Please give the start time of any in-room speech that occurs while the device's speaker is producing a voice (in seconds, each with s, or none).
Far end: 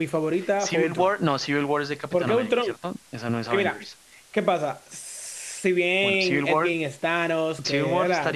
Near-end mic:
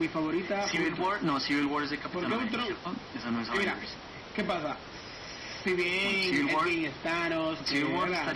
none